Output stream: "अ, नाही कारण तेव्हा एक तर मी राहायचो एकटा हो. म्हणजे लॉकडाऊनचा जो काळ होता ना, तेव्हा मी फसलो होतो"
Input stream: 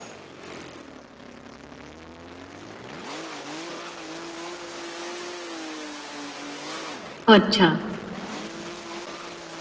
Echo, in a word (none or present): none